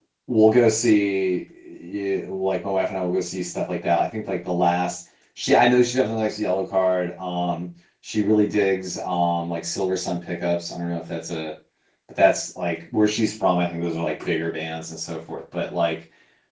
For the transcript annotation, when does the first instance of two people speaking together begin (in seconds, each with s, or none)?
none